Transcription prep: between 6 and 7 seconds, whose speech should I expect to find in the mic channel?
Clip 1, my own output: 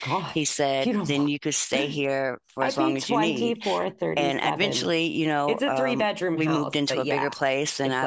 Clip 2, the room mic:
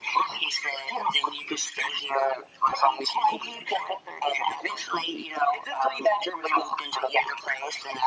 echo only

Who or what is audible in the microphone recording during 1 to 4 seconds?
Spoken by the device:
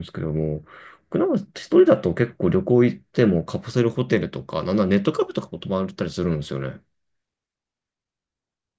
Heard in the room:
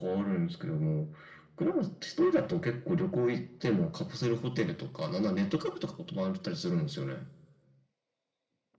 echo only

